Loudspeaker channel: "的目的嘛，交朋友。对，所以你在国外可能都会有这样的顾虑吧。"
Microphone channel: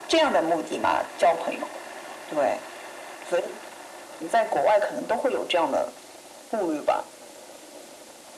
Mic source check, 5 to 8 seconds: echo only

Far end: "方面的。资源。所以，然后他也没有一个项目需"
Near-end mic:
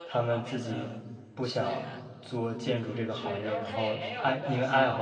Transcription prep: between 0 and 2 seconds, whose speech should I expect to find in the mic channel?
both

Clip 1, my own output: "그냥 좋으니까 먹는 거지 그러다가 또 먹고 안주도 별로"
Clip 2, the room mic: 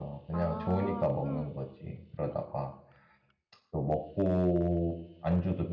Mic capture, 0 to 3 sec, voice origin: both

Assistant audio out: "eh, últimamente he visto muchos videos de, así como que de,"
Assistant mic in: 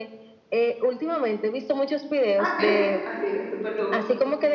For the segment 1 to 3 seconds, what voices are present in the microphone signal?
both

